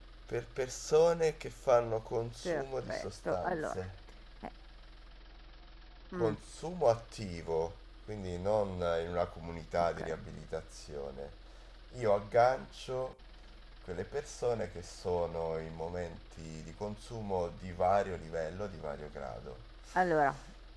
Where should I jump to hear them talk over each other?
2.4 s

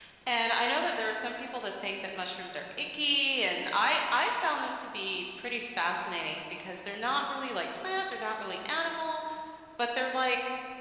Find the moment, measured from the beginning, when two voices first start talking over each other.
none

